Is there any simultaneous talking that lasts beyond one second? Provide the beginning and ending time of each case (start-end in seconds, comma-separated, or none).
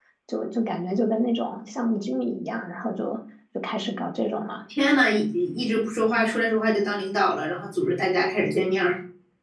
none